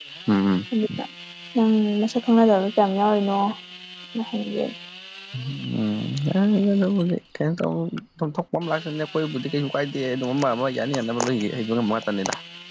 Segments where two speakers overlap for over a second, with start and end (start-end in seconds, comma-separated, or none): none